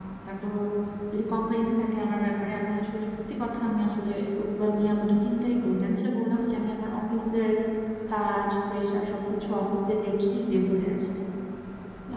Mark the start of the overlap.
none

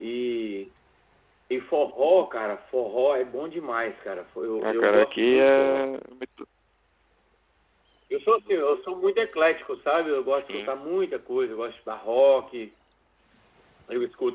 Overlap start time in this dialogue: 4.6 s

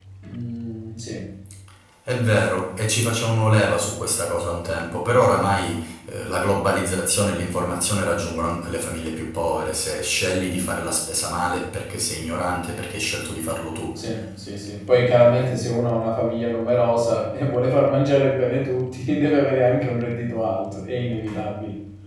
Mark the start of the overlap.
none

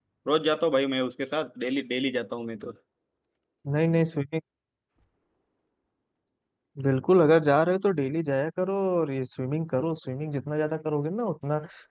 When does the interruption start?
none

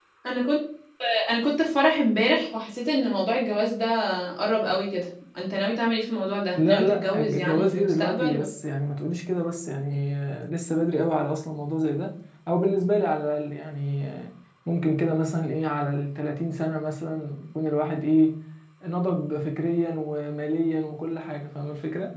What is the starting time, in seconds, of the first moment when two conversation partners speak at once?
6.5 s

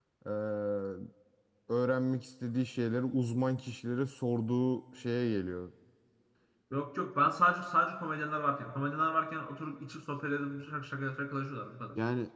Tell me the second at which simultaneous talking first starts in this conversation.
none

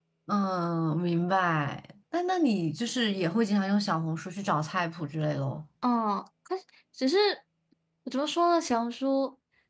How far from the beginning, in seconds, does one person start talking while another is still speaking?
none

